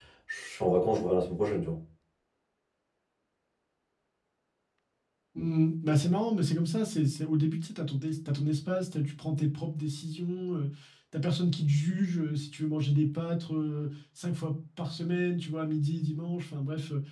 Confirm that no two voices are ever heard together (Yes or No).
Yes